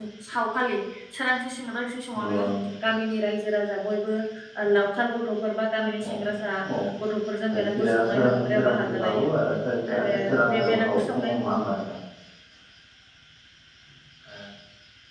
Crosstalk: present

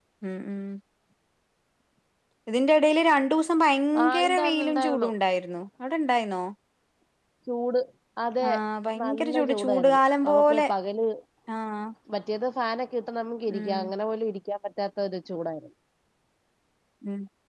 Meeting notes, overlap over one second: present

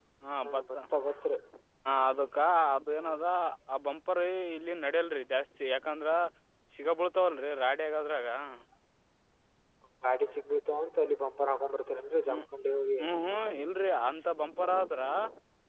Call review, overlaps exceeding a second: none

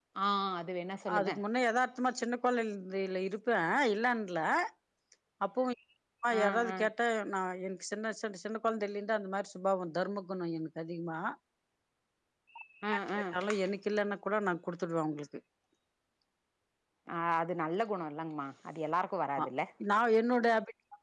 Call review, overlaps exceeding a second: none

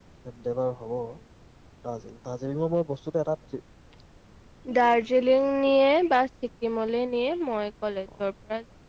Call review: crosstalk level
none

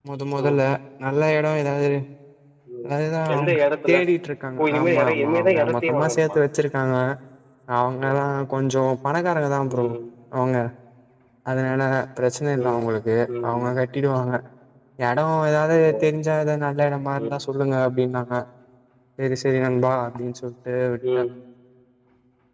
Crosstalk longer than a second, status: present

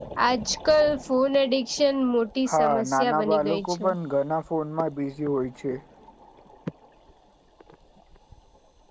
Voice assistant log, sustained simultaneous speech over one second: present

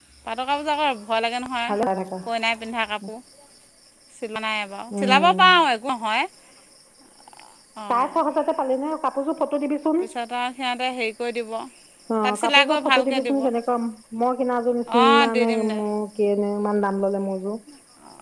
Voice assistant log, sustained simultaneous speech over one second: present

